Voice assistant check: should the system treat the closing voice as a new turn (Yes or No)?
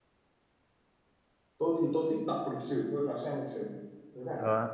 Yes